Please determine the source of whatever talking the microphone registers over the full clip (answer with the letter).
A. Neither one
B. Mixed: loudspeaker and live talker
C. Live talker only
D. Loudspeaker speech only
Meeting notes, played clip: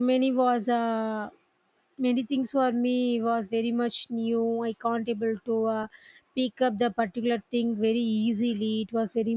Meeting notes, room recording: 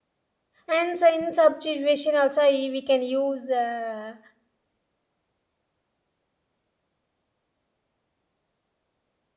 C